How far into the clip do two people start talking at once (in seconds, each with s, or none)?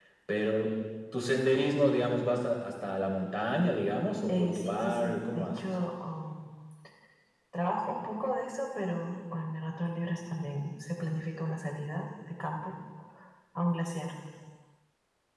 4.3 s